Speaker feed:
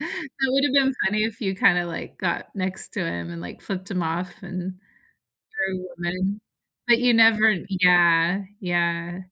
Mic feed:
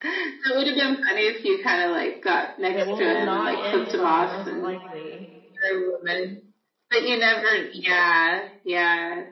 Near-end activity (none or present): present